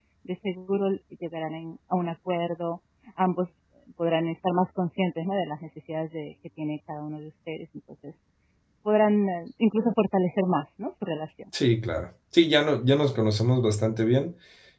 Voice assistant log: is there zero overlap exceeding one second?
Yes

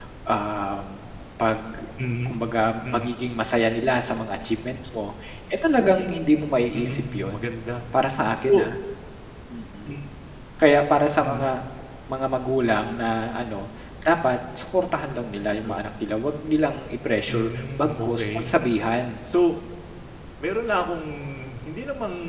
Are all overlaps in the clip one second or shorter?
No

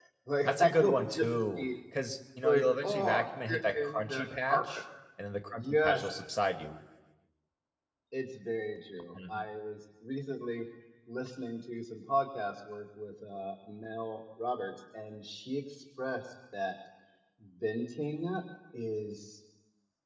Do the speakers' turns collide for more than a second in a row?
Yes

